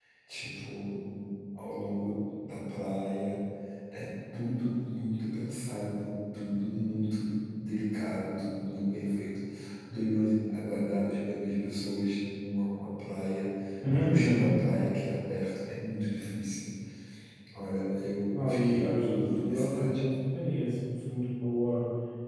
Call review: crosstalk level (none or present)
present